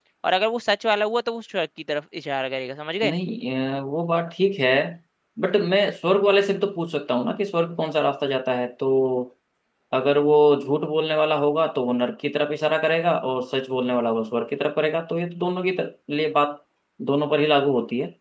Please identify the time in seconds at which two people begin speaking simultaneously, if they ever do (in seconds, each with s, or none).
none